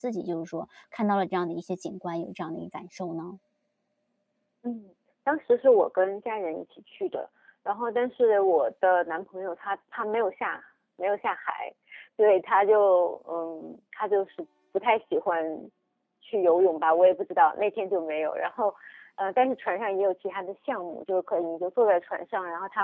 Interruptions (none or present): none